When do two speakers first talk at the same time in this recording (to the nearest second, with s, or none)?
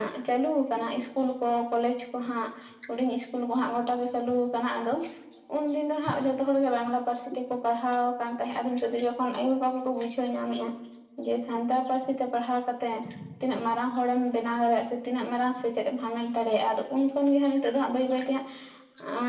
none